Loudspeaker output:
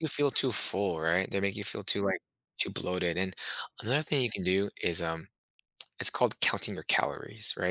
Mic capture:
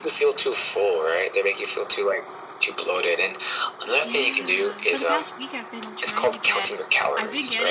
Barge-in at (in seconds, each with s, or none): 4.0 s